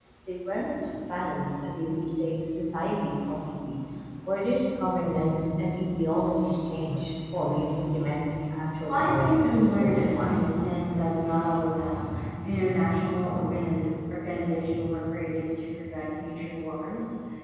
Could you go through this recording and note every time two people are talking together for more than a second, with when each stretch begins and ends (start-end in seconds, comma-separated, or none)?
8.8-10.5